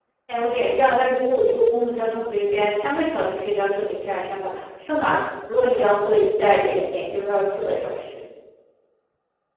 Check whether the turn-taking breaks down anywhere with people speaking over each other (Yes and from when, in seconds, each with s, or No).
No